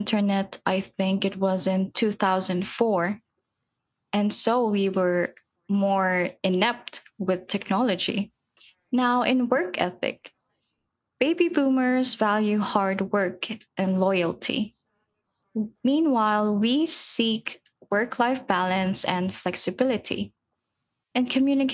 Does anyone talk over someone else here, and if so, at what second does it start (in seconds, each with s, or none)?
none